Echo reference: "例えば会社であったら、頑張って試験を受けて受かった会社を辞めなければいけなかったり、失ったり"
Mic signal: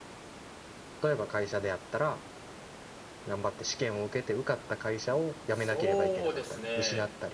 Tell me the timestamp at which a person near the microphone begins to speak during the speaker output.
5 s

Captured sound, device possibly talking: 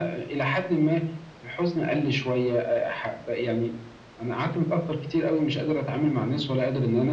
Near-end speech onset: none

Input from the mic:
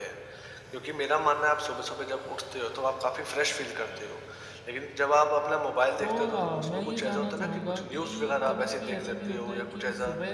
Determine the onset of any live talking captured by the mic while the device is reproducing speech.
6 s

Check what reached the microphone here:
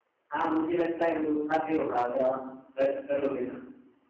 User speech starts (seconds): none

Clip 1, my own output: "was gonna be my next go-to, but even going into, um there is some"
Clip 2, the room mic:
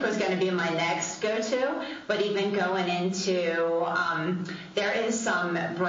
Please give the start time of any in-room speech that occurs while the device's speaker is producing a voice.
none

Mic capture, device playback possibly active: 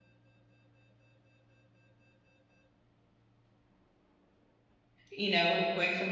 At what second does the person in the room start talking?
5 s

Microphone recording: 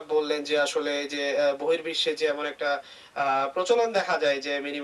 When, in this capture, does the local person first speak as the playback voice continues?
none

